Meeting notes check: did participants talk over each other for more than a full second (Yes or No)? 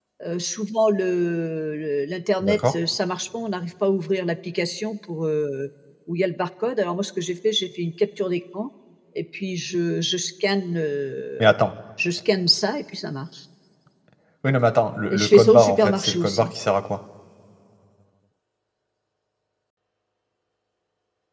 Yes